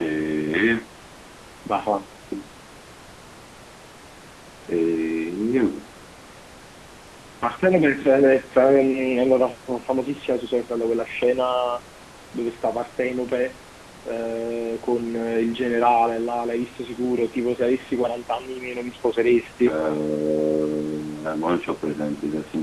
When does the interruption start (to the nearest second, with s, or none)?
none